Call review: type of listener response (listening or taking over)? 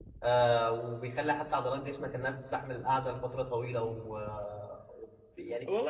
taking over